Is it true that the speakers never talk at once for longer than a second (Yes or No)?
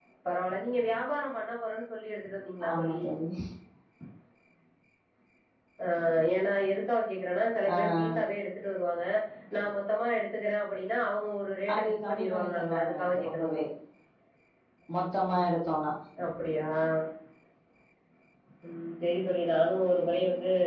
No